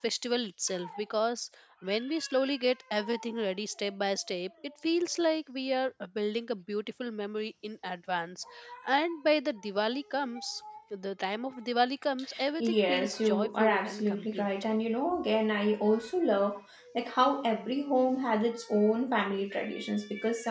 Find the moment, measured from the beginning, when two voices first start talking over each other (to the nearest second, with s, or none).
13 s